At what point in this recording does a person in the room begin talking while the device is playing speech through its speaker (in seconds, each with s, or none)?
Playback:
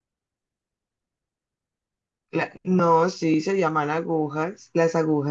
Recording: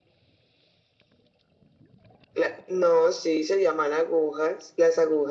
none